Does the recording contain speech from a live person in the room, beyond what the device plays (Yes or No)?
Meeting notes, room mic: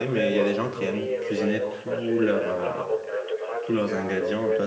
Yes